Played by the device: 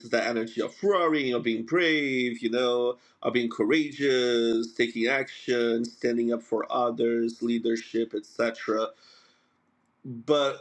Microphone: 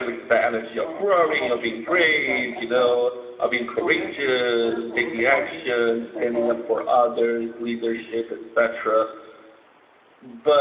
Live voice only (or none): Um, I won't keep going, but I thought, well, there is a little, there is a little bit more. Maybe if, if that's all right.